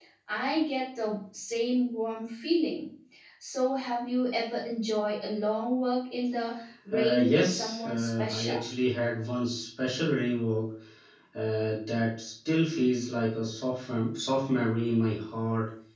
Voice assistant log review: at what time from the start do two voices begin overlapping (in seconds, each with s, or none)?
6.9 s